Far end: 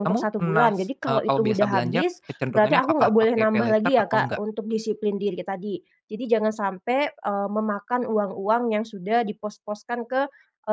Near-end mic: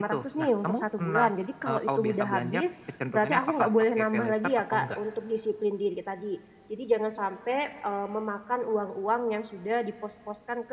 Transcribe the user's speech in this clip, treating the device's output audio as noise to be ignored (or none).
none